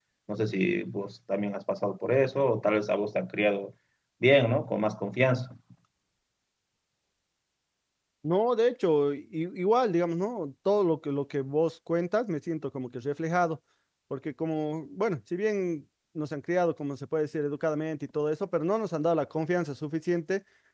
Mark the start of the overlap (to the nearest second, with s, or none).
none